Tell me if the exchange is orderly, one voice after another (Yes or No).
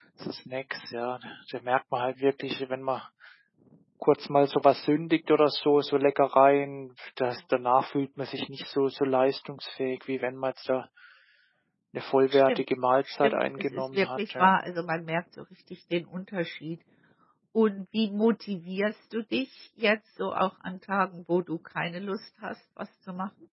No